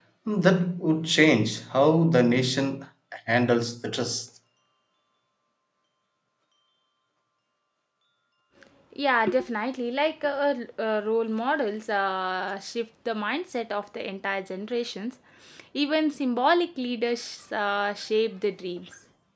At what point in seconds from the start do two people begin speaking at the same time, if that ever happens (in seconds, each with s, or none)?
none